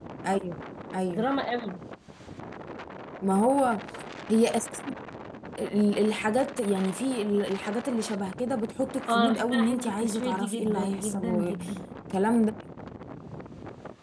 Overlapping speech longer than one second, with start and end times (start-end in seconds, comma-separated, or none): 9.1-11.7